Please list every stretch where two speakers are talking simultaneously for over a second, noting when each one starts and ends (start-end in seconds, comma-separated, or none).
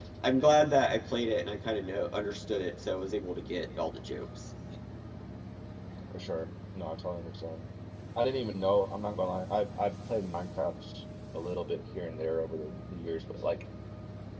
none